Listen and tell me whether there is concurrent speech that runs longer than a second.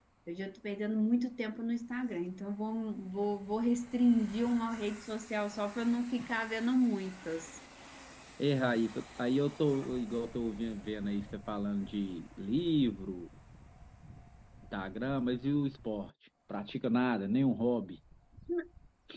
No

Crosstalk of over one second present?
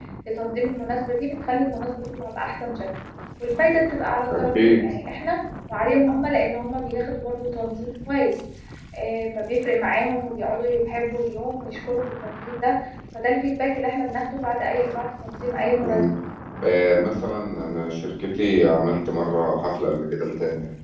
No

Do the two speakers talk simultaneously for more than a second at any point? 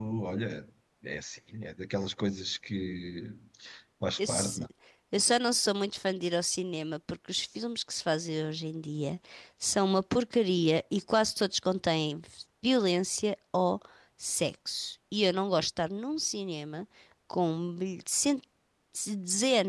No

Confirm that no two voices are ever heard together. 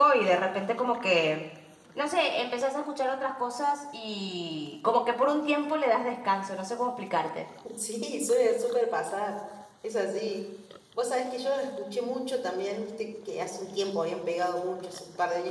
Yes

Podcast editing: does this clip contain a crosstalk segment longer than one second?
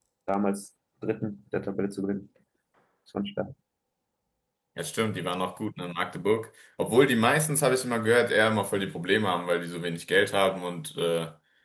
No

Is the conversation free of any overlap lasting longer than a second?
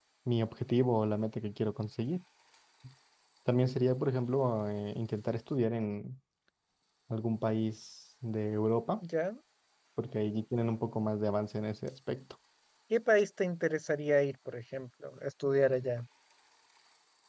Yes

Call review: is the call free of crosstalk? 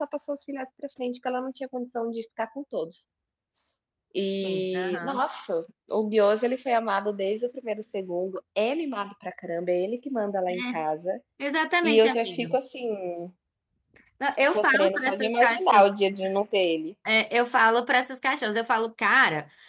No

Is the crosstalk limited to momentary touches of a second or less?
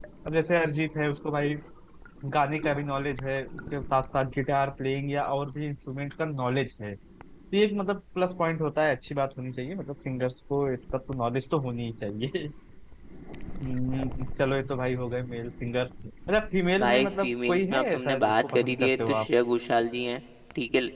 No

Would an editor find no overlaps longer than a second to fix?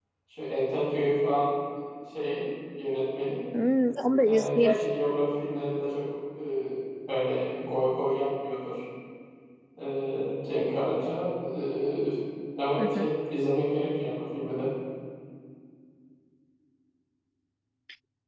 Yes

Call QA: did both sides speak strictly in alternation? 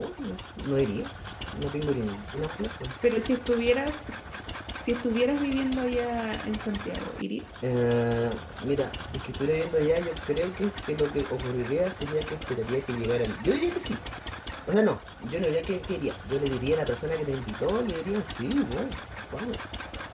Yes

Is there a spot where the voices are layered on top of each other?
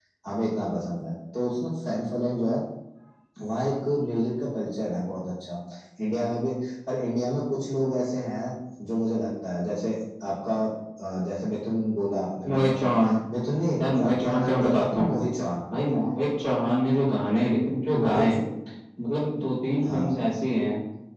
Yes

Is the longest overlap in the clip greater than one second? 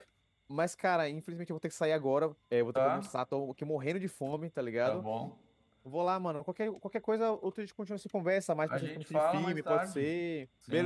Yes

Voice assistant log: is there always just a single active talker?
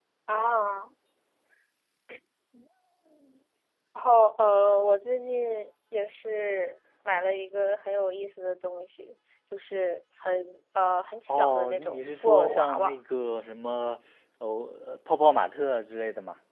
No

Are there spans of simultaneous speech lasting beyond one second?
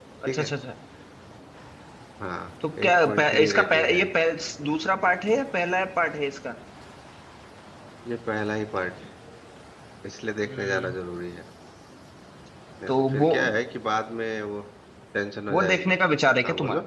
Yes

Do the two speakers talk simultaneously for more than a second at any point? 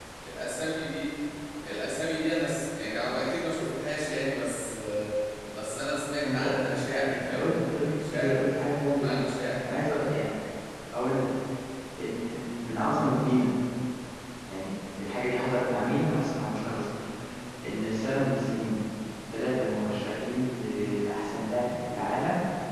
Yes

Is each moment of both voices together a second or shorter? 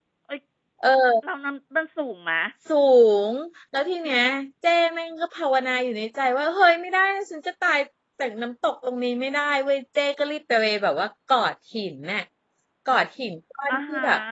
Yes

